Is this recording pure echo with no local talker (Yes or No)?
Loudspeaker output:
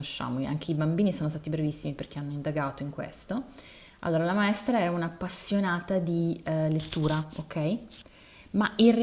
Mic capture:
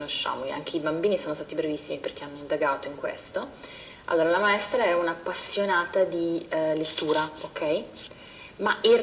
Yes